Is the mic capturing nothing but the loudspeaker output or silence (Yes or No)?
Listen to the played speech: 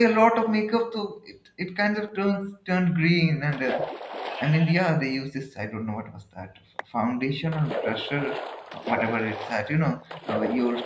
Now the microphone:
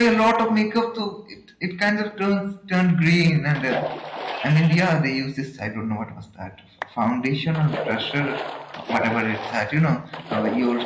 Yes